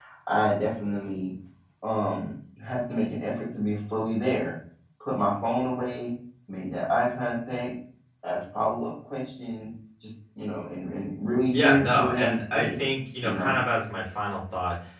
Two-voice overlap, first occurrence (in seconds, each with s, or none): 11.5 s